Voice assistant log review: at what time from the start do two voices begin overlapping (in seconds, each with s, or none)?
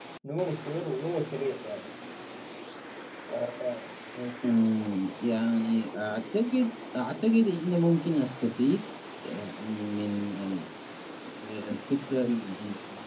none